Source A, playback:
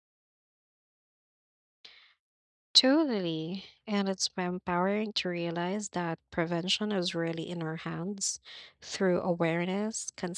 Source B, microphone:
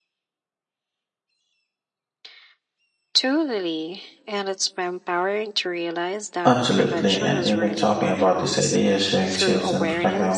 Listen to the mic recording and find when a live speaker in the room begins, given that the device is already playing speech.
6.4 s

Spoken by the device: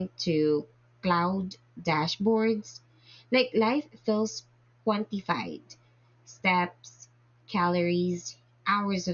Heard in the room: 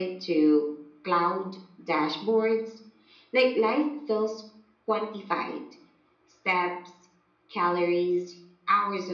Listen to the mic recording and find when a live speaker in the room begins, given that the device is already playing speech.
none

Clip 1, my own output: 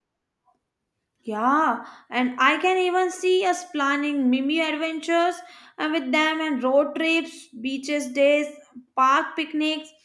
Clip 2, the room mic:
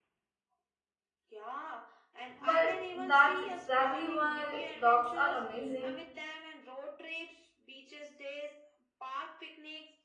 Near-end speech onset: 2.4 s

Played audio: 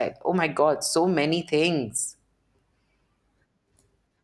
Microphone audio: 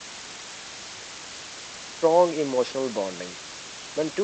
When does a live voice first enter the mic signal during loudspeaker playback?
2.0 s

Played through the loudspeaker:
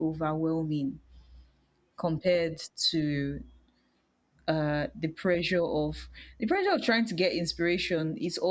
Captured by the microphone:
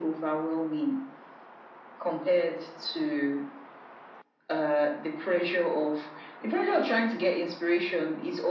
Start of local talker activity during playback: none

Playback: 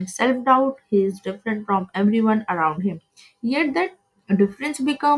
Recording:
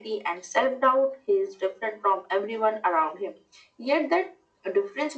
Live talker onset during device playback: none

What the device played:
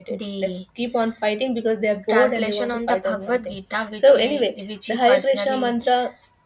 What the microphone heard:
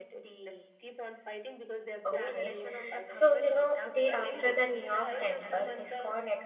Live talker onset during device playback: 2.0 s

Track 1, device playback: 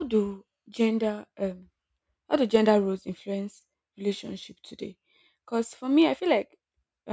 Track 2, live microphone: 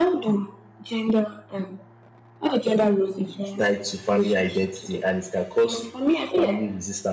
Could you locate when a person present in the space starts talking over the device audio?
3.4 s

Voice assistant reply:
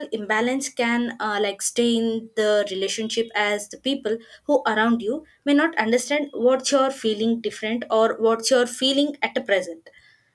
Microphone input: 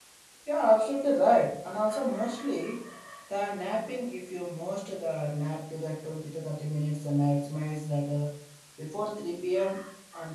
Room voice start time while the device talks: 0.4 s

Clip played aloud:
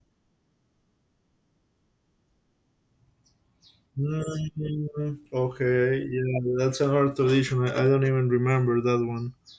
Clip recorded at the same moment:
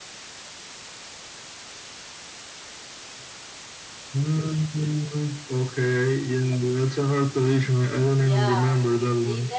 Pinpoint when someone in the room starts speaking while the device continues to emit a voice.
8.2 s

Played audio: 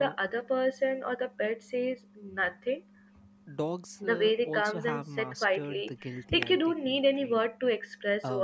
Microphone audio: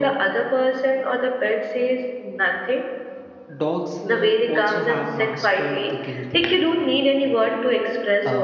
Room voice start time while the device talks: none

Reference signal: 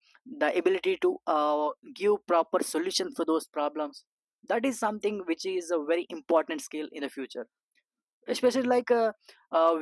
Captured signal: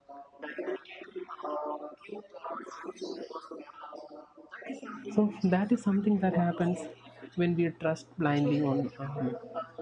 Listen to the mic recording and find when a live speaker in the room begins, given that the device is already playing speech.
5.1 s

